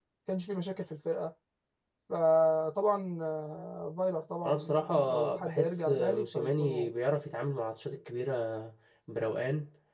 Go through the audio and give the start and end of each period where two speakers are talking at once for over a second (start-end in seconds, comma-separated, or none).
4.4-6.9